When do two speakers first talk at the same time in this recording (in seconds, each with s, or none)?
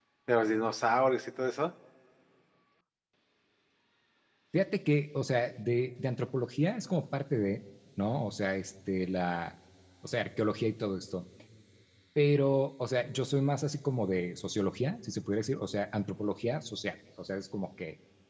none